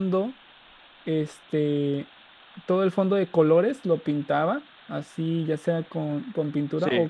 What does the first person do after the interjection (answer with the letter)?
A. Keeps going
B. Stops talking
A